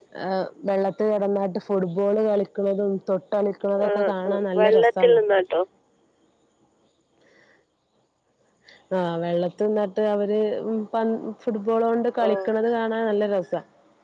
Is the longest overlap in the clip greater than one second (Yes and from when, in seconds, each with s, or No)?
Yes, from 3.9 s